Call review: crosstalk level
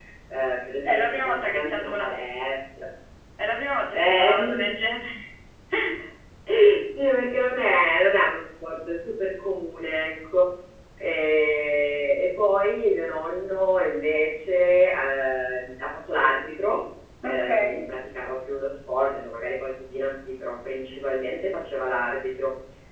present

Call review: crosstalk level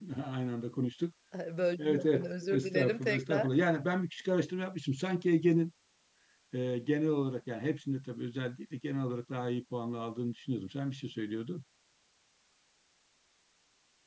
present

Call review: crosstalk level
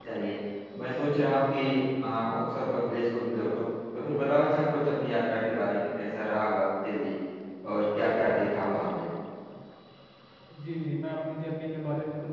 none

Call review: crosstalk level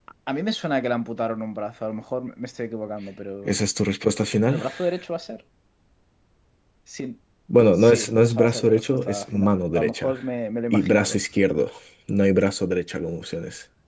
present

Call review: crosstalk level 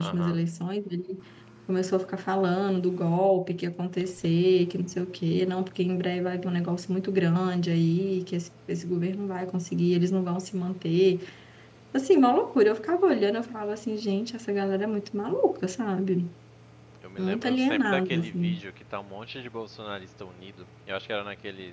present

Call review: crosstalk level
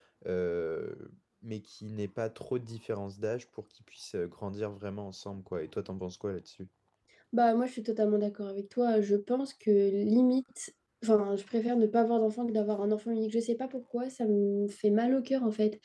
none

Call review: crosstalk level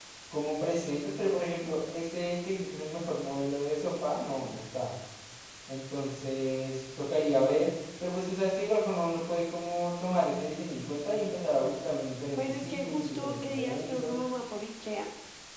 present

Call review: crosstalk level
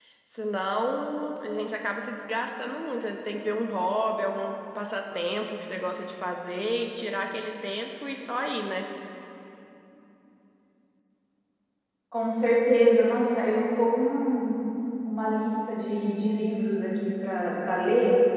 none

